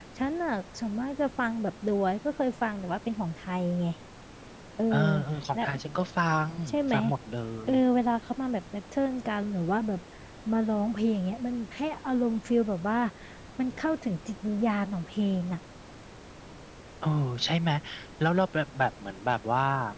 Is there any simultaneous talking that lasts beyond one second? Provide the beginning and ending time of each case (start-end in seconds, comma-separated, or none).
none